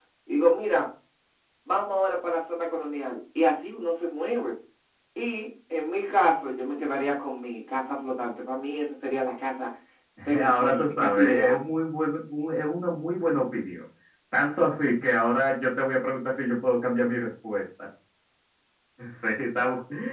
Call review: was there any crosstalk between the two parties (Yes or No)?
Yes